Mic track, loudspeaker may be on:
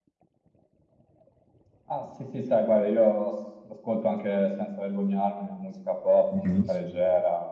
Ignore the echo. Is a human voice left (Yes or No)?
Yes